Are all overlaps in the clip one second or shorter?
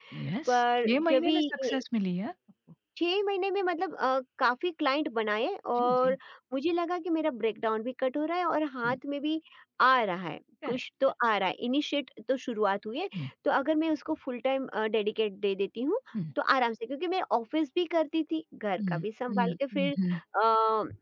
No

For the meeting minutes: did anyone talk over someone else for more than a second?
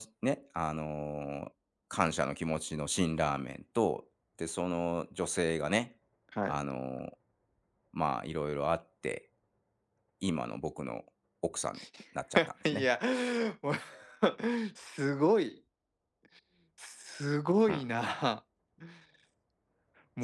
No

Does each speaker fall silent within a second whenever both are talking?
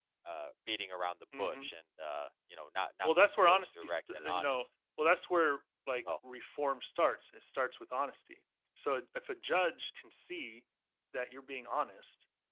No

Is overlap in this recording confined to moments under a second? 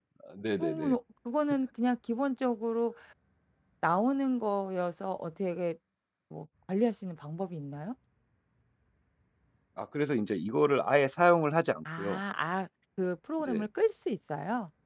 Yes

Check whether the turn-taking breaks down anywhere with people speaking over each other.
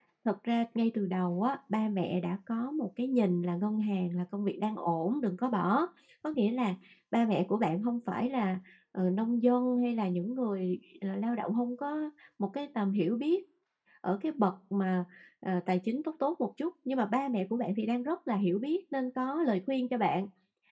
No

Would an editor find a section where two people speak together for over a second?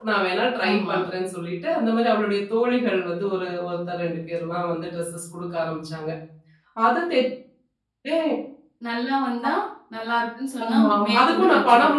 Yes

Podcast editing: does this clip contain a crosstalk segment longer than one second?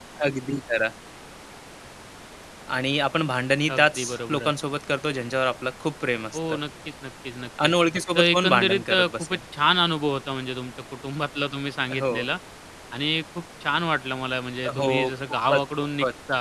Yes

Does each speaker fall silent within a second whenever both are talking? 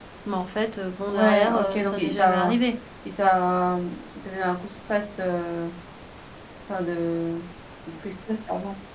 No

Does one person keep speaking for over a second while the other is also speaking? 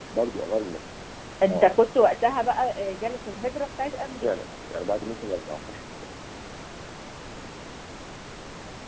No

